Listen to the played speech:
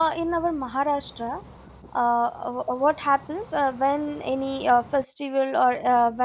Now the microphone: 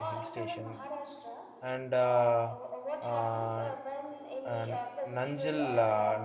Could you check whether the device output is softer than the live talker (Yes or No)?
Yes